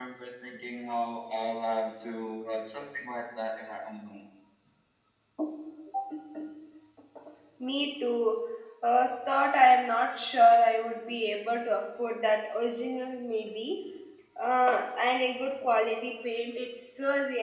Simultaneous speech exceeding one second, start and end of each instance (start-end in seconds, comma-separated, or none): none